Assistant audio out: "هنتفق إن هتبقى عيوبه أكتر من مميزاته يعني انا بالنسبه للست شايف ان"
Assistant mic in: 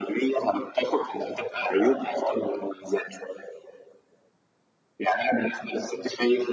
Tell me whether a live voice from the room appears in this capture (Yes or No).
No